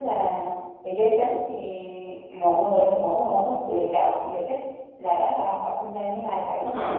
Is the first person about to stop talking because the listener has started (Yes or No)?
Yes